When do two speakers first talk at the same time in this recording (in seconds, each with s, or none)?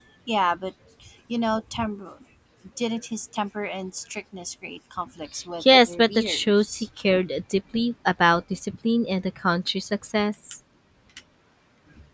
5.6 s